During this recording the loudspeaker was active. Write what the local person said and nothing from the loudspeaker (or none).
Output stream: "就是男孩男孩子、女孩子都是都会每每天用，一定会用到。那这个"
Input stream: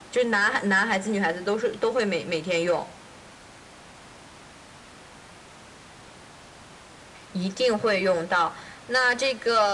none